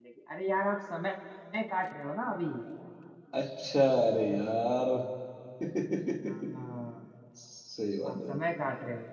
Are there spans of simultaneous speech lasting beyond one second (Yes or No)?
No